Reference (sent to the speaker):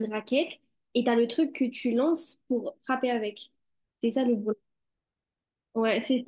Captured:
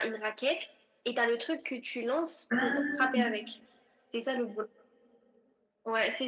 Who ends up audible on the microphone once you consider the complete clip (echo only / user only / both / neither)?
both